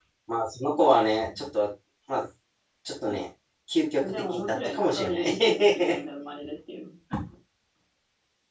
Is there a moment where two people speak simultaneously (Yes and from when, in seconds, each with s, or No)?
Yes, from 4.0 s